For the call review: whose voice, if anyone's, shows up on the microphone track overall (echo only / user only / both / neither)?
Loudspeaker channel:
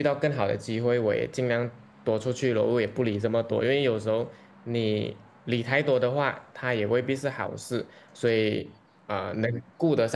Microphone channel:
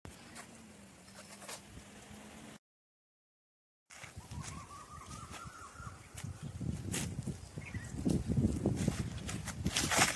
neither